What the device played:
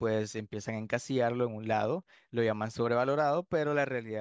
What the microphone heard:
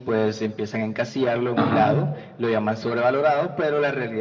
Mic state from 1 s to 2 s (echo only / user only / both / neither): both